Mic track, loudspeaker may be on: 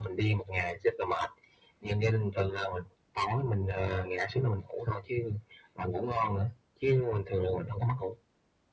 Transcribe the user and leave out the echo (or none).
none